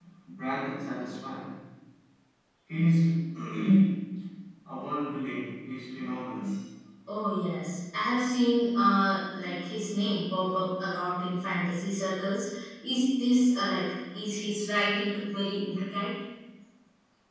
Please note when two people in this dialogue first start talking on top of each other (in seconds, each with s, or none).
none